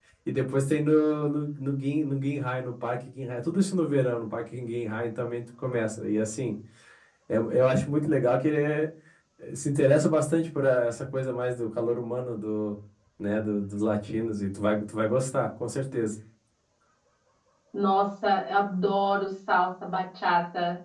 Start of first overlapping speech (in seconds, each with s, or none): none